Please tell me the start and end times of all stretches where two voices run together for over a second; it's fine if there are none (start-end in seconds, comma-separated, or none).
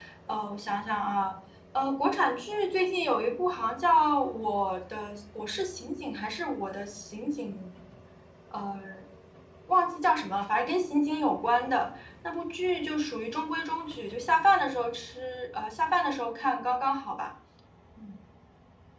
none